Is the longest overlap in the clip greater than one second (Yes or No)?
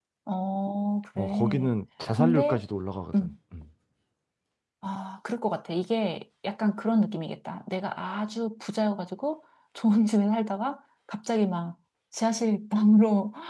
No